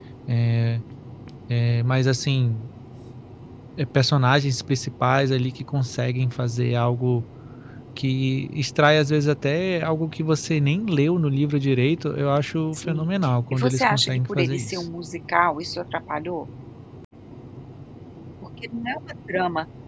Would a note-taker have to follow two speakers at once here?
Yes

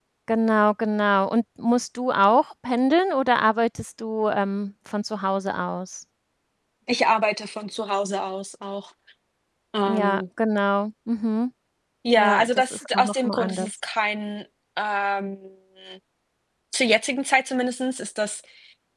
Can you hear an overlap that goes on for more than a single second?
Yes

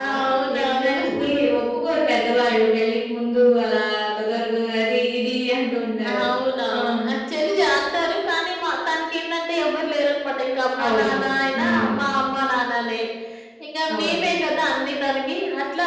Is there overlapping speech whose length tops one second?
Yes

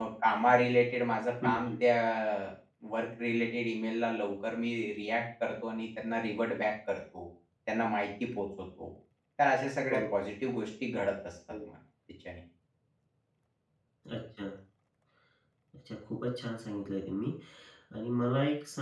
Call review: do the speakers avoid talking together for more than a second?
Yes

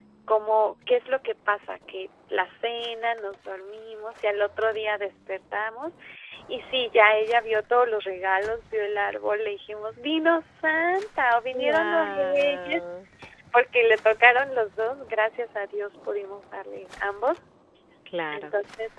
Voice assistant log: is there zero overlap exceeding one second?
No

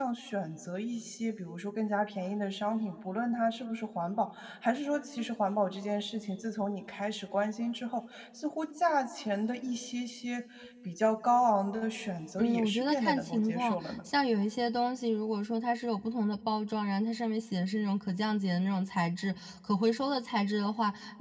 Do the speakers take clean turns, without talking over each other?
No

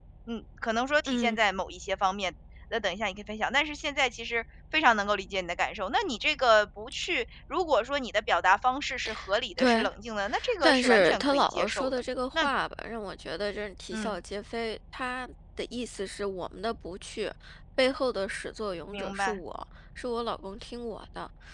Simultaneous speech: Yes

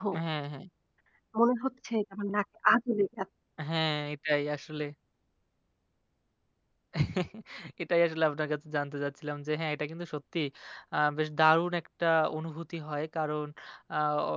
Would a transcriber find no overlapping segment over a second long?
Yes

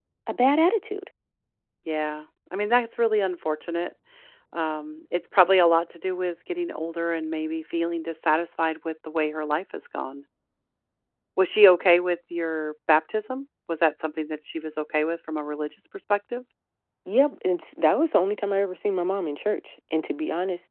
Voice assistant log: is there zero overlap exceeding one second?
Yes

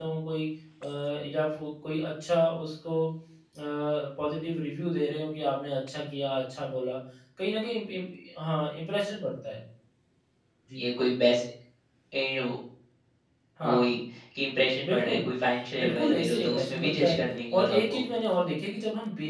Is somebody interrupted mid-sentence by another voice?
Yes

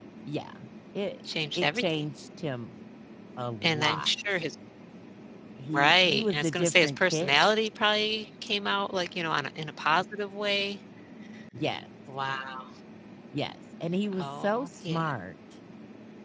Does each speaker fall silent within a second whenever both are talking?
No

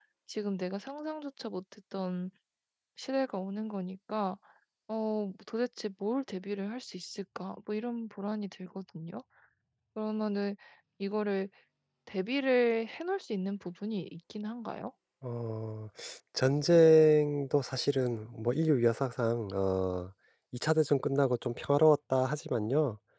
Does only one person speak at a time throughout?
Yes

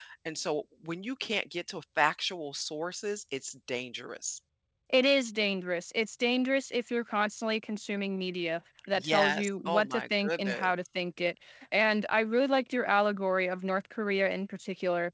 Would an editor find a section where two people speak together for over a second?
Yes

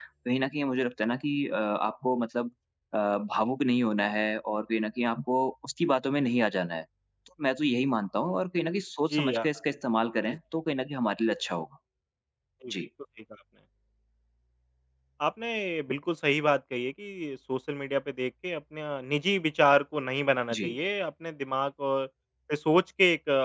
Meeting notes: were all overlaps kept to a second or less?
Yes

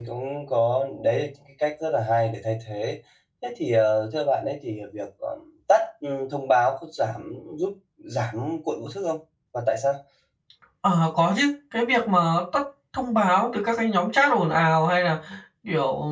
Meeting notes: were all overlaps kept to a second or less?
Yes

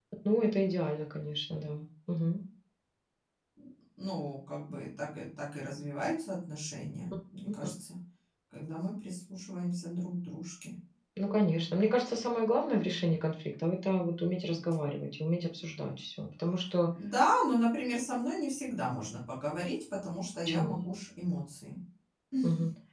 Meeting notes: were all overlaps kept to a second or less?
Yes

